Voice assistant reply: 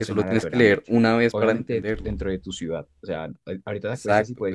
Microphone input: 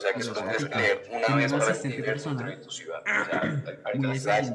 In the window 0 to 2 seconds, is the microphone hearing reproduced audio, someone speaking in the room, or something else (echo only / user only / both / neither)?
both